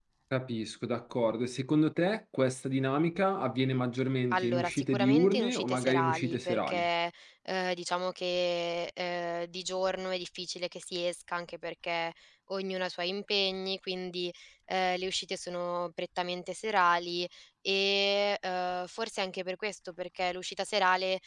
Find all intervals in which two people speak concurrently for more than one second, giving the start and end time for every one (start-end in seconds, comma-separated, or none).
4.3-6.9